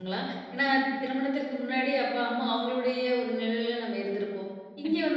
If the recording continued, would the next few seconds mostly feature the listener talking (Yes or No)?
No